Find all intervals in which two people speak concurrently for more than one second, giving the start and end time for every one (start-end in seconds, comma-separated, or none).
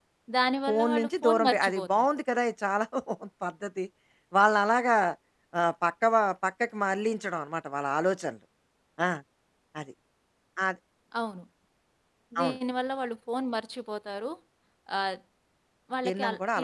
0.7-2.1